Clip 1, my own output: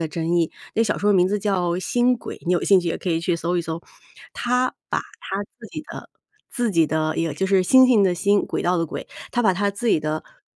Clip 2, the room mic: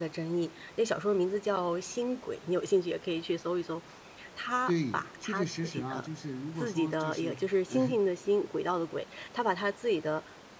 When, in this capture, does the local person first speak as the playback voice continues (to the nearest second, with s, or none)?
5 s